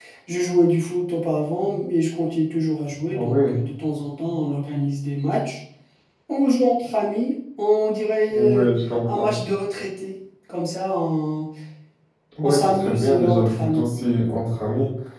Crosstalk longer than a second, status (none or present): present